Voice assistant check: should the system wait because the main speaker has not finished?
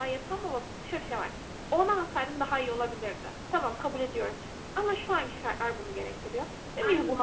Yes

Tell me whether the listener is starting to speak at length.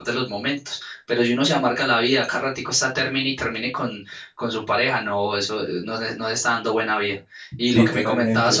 No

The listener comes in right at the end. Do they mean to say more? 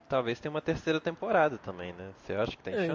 Yes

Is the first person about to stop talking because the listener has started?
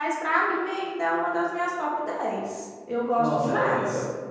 Yes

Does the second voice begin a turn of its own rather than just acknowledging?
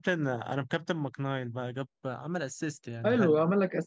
Yes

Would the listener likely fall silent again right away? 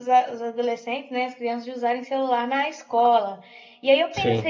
Yes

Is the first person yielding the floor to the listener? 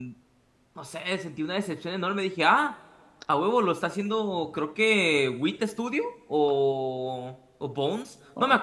No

